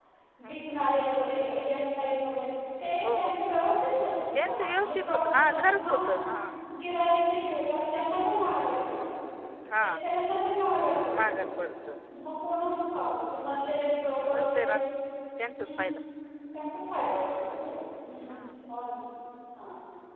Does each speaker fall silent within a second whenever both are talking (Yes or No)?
No